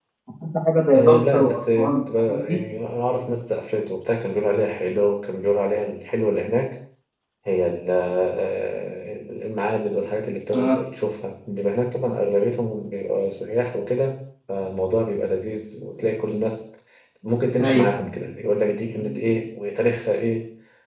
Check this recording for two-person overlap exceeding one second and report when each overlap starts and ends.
0.9-2.6

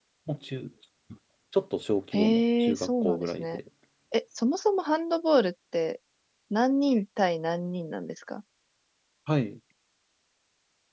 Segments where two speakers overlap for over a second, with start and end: 2.1-3.6

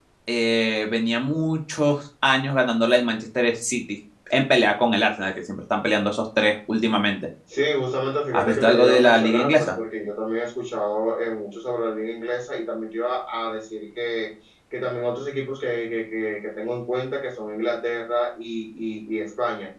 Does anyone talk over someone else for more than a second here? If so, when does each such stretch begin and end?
8.3-9.7

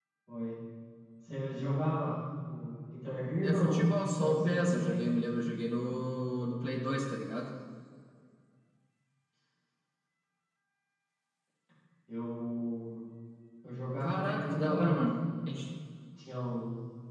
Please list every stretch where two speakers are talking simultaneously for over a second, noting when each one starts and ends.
3.4-5.0, 14.0-15.2

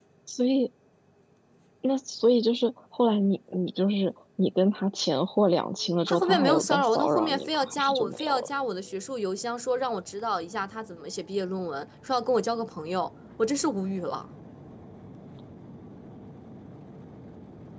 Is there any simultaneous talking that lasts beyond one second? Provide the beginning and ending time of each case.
6.1-8.5

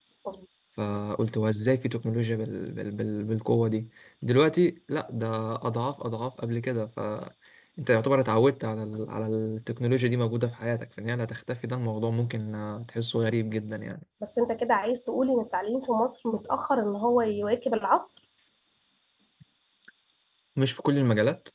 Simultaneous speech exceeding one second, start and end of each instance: none

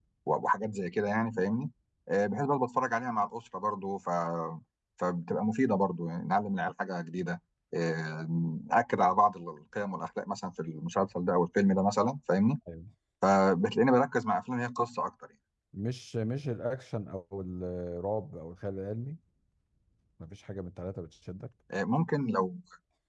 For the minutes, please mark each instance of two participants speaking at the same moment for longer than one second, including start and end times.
none

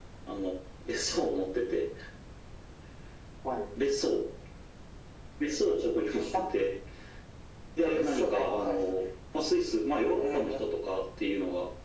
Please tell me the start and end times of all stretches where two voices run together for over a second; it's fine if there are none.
7.8-9.0

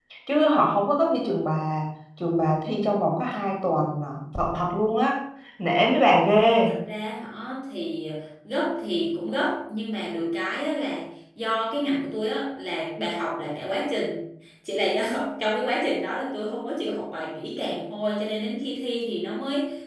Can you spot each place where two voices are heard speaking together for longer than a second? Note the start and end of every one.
none

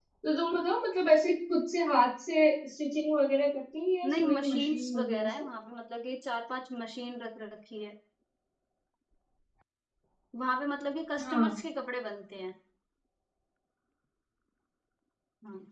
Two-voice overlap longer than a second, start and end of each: 4.1-5.4

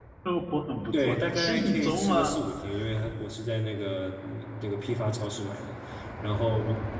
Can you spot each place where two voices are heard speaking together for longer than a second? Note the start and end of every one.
0.9-2.4

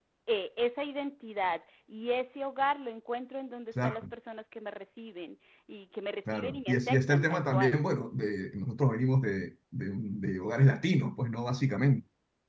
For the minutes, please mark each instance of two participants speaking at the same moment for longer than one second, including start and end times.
6.3-7.7

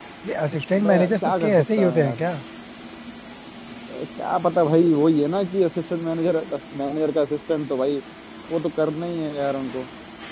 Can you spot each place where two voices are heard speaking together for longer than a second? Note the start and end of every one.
0.8-2.2

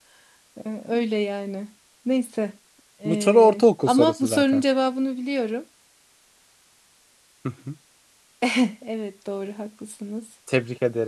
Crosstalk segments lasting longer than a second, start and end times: 3.1-4.6

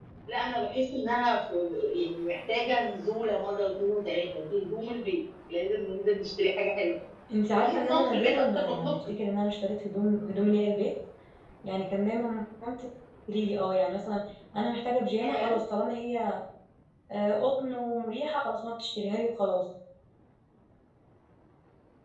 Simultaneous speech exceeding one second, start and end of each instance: 7.5-9.2

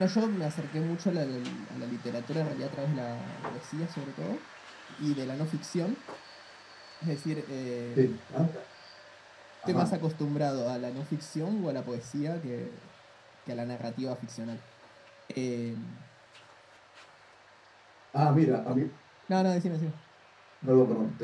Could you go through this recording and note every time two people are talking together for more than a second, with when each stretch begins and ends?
none

